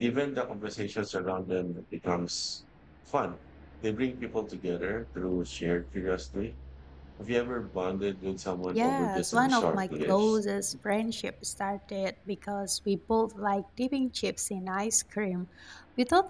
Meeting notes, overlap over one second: present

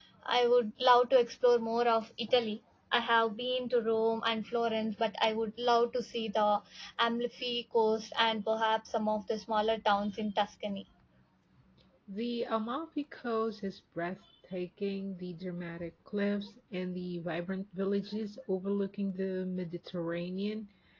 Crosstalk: none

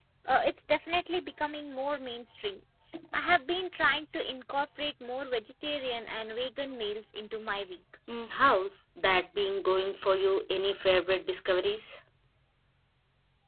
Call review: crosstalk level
none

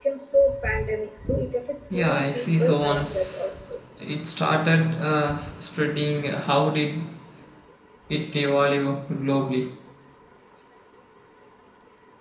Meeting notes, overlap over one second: present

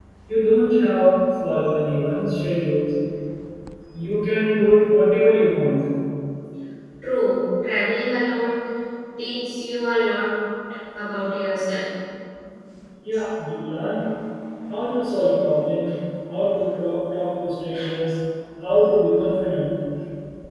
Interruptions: none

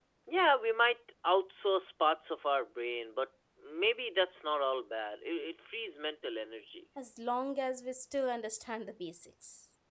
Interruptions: none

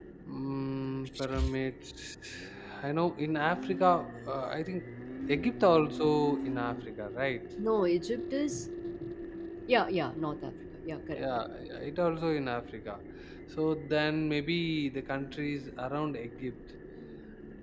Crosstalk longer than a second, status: none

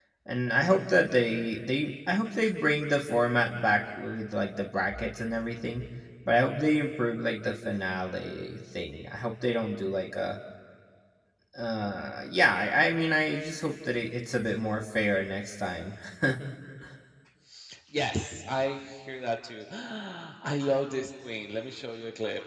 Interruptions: none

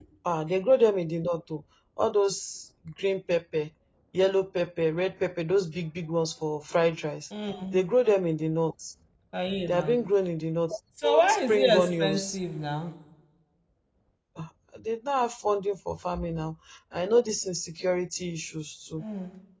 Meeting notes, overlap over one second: present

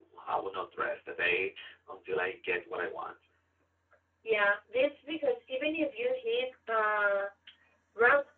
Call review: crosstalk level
none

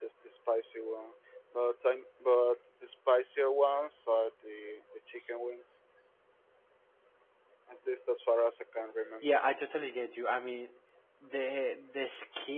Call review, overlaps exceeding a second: none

